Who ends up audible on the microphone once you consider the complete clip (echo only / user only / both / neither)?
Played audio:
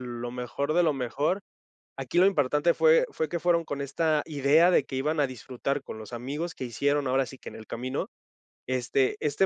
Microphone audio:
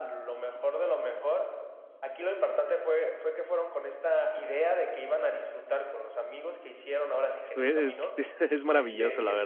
both